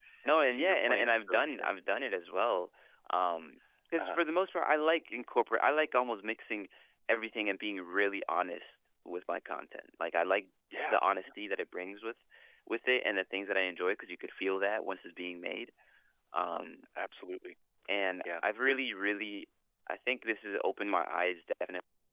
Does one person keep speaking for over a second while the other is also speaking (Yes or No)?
Yes